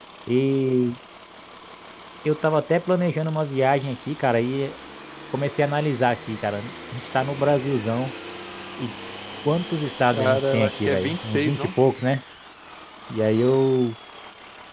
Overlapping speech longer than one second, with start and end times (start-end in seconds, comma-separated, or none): 10.1-11.7